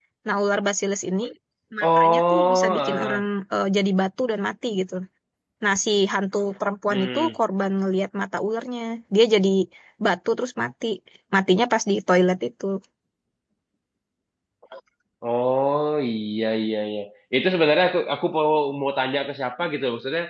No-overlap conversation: No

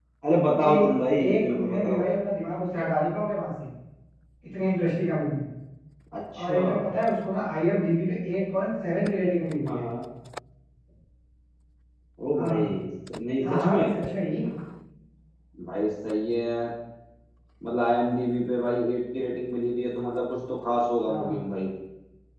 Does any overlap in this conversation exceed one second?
Yes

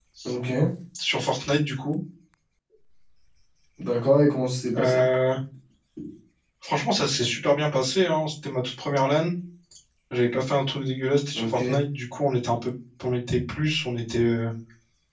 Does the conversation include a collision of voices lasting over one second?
No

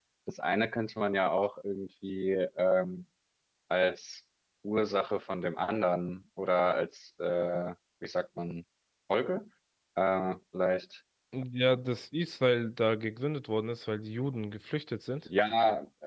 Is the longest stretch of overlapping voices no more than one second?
Yes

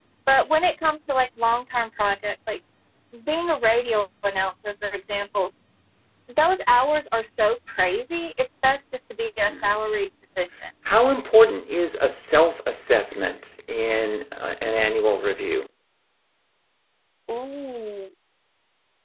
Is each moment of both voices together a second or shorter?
Yes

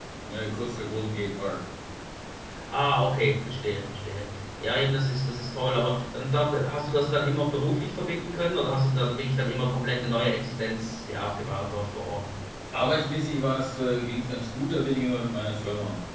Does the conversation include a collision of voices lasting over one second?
No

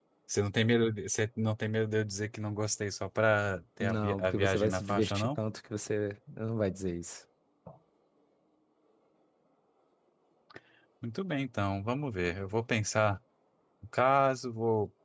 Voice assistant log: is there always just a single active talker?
No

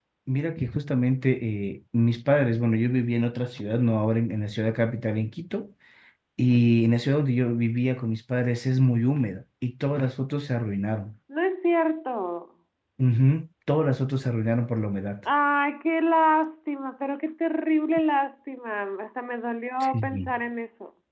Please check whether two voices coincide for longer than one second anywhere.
No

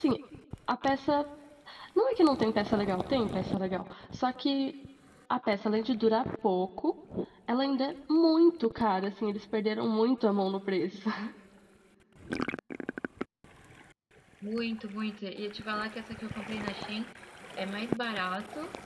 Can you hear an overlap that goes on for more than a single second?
No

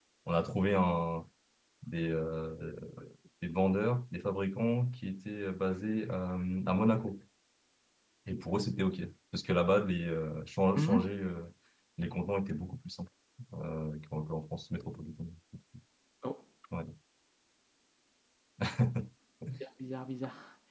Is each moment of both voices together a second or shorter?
Yes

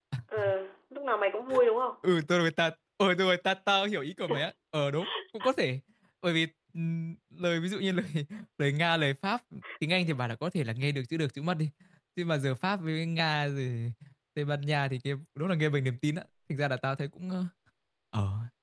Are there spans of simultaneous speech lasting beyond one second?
No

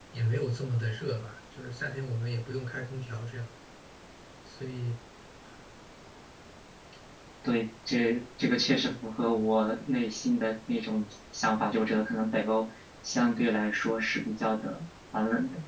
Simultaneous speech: No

